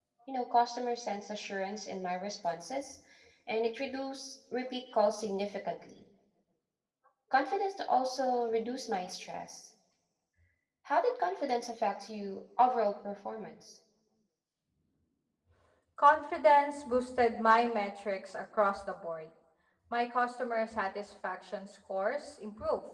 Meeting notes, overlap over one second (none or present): none